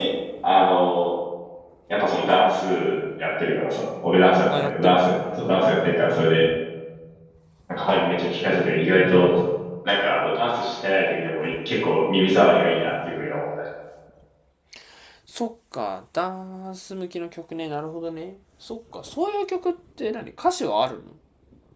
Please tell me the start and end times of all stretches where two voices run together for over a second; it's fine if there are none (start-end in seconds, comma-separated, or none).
4.5-5.8